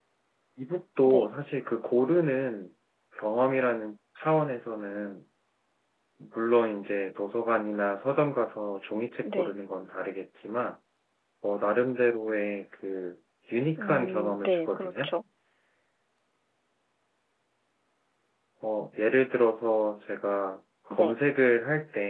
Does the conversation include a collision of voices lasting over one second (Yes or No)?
Yes